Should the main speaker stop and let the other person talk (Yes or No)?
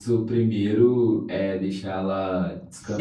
Yes